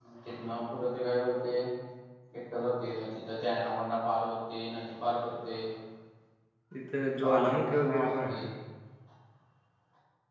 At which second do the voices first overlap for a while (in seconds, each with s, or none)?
7.2 s